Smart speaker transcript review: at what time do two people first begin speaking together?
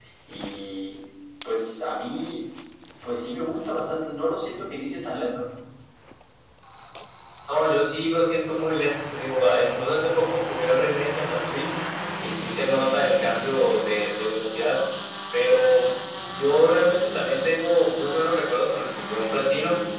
none

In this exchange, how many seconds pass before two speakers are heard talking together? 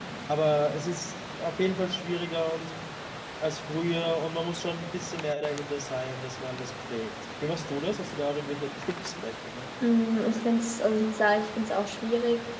none

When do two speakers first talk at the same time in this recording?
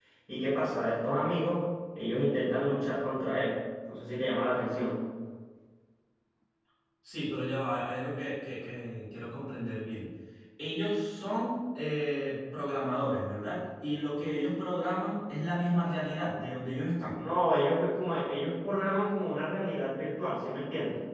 none

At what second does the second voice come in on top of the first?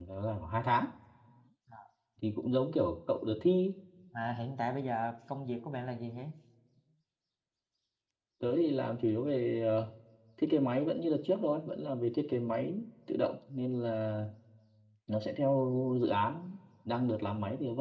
none

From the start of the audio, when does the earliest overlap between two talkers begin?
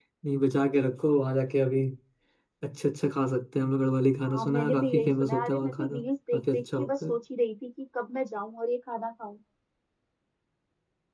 4.2 s

